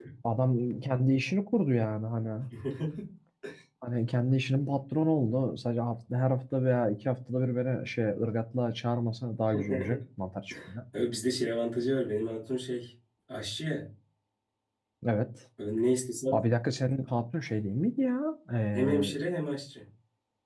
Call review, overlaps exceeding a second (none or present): none